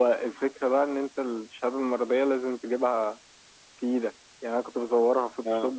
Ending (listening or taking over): listening